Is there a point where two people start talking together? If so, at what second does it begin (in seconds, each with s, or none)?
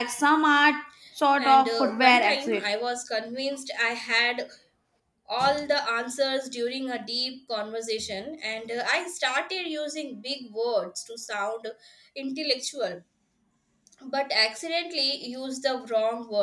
1.4 s